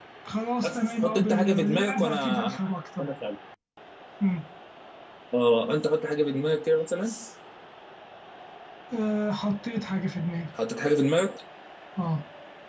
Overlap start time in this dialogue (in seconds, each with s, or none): 0.6 s